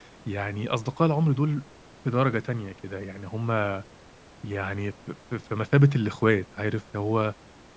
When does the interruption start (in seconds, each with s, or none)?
none